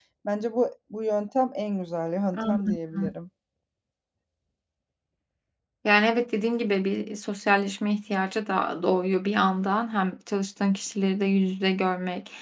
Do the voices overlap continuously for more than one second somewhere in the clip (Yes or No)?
No